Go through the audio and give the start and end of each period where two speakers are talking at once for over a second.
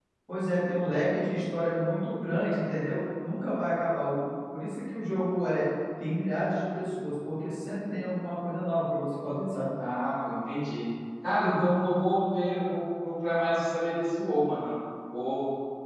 none

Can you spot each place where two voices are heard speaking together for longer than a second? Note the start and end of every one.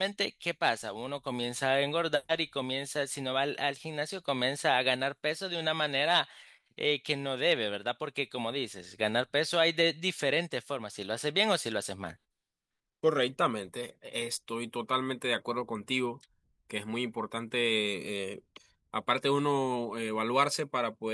none

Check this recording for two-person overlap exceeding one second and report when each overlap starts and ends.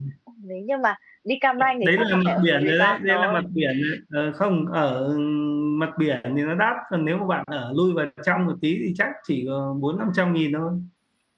1.8-3.4

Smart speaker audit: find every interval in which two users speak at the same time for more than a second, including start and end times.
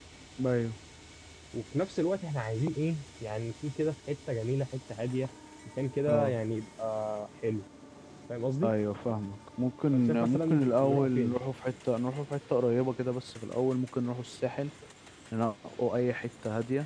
9.9-11.3

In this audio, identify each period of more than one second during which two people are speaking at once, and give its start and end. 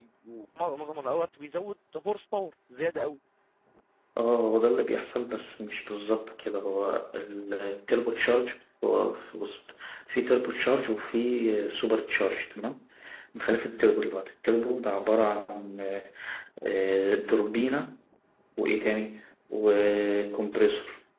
none

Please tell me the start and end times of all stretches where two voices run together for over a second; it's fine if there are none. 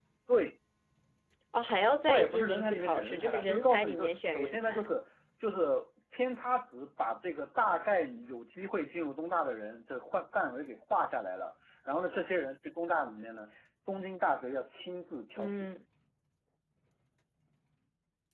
2.1-4.9

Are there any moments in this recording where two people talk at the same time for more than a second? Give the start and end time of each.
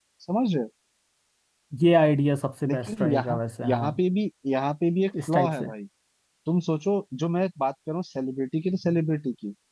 2.7-3.9

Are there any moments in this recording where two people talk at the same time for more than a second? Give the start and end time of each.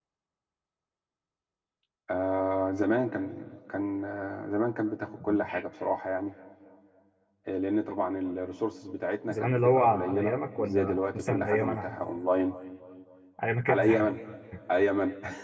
9.3-11.8

